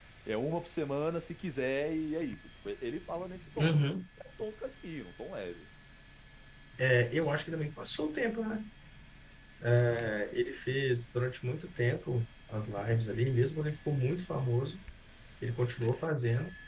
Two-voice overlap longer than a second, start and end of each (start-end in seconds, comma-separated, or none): none